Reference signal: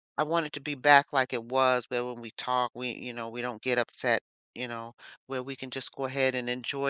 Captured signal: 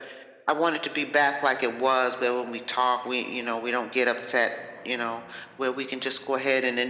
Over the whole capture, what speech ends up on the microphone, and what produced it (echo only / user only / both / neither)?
echo only